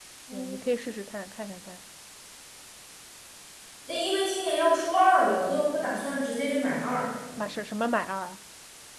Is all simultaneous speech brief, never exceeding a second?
Yes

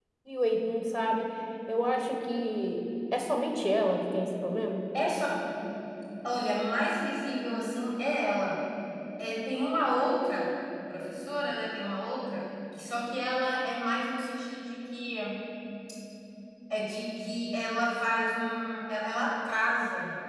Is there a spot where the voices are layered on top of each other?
No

